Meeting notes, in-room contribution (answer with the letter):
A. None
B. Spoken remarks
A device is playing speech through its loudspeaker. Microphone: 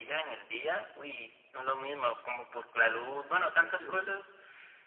B